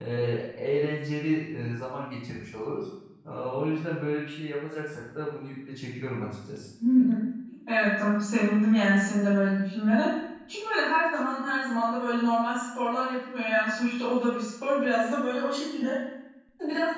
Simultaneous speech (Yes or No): No